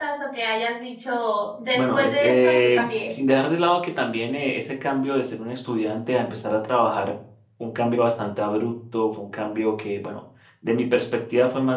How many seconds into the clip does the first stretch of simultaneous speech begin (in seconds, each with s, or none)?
1.7 s